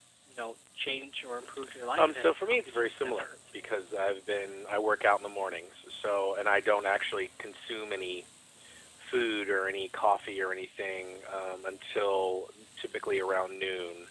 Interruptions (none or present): present